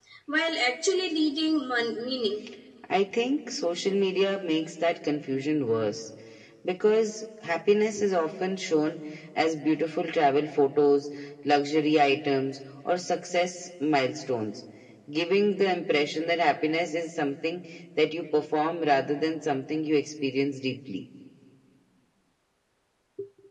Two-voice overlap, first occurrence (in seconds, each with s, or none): none